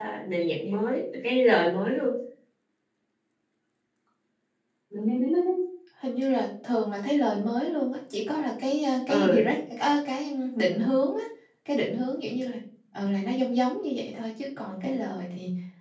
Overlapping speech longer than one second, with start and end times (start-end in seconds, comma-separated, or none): none